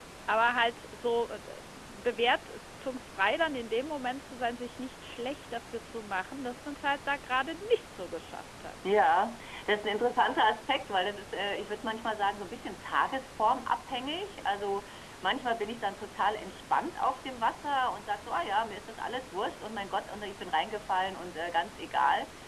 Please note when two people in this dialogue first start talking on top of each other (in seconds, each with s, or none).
none